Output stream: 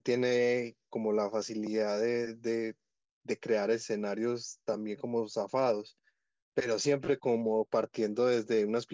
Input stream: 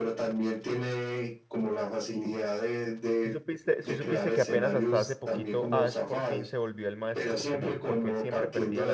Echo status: present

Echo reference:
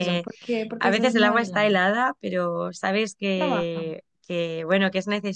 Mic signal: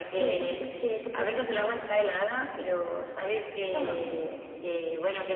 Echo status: present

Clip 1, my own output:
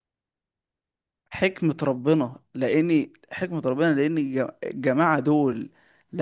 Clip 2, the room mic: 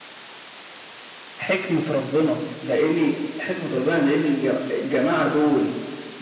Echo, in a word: present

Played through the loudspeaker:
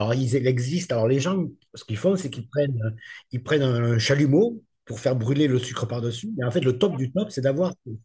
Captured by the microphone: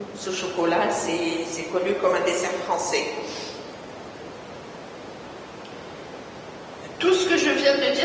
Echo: none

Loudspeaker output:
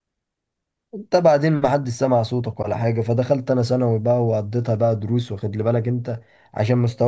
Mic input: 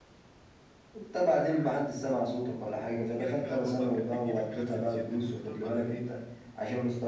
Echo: present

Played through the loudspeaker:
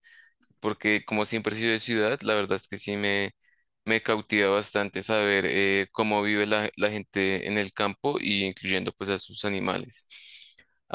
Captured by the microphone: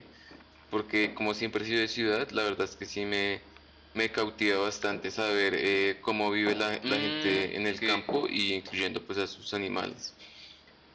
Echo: present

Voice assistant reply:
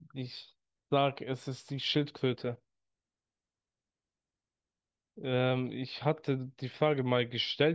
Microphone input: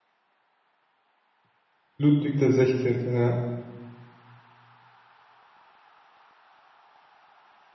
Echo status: none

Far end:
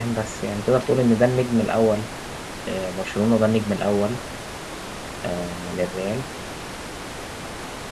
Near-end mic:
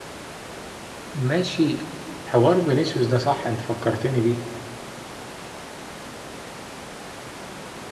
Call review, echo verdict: none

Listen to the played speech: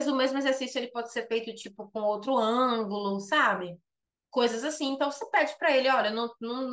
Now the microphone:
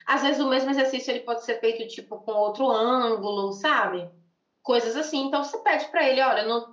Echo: present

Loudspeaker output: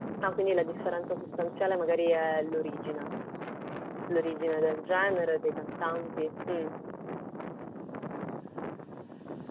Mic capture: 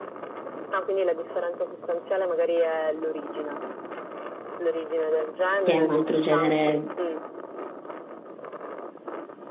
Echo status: present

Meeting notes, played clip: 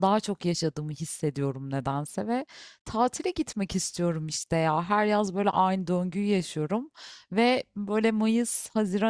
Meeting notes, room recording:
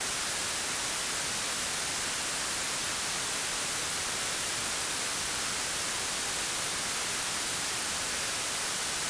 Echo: none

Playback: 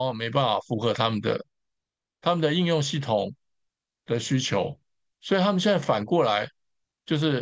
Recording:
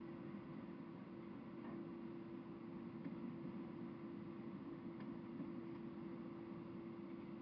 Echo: none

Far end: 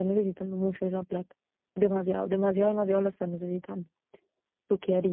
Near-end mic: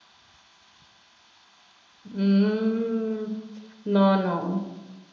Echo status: none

